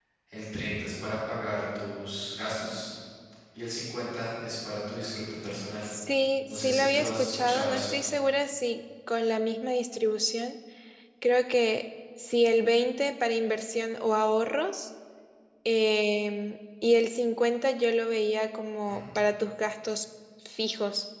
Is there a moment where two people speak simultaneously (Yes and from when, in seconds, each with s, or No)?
Yes, from 6.5 s